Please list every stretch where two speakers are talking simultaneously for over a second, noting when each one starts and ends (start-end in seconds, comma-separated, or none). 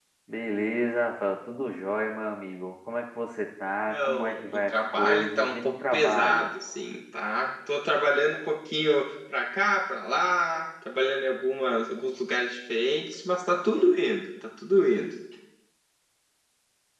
3.9-6.5